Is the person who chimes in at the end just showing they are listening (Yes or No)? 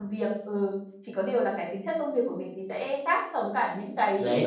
No